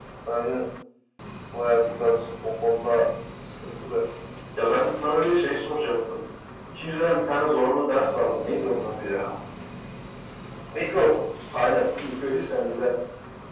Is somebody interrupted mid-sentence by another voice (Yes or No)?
No